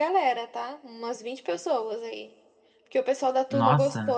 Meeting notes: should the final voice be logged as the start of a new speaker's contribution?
No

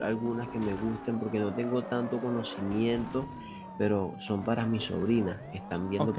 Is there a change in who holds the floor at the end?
No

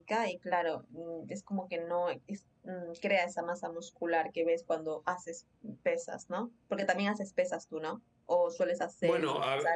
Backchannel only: No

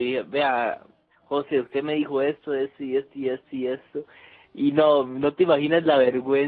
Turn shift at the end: No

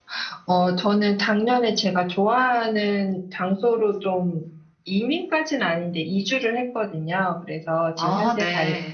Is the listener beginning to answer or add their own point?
No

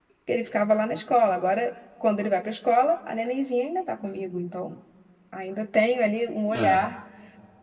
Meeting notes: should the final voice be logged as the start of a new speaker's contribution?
No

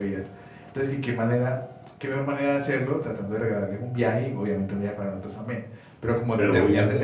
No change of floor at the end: No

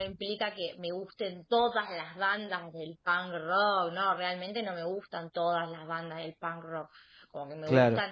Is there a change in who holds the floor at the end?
No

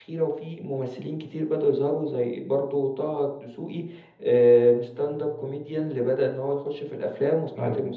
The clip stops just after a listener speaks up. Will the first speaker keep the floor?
No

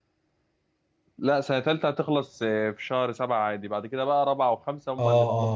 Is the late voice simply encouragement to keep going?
No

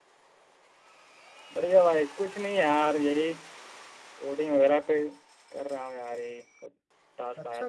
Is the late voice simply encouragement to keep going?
No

